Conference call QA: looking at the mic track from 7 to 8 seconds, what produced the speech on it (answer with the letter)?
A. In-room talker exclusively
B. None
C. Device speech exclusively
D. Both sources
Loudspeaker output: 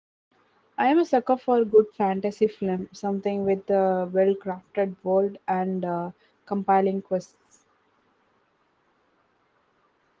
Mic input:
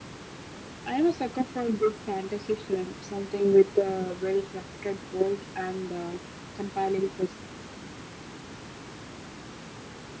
C